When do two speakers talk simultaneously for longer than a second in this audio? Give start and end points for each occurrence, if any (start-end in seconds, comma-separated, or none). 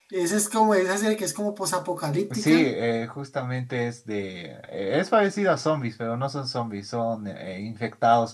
none